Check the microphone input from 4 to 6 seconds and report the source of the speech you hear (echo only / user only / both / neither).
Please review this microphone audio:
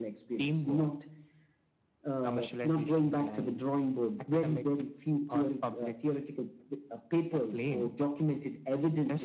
echo only